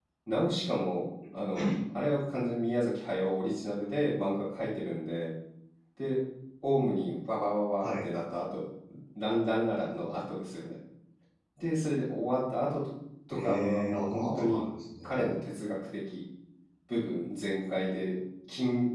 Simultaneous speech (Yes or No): Yes